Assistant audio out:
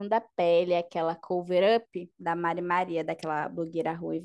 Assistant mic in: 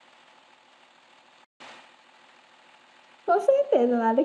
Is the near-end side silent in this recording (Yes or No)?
No